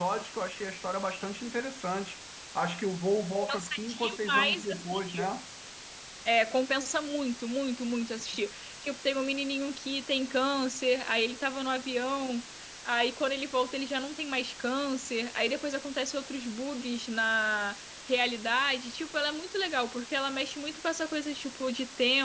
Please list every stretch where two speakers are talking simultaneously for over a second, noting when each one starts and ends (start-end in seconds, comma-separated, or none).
3.4-5.3